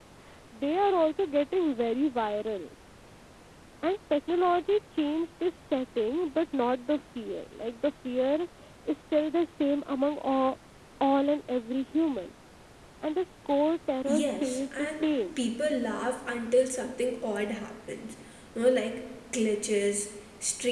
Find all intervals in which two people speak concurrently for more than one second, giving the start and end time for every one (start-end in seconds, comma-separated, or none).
14.1-15.4